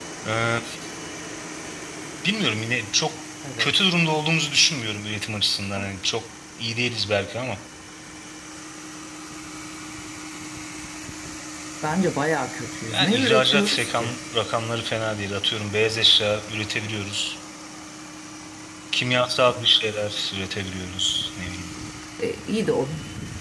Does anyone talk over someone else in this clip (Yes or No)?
Yes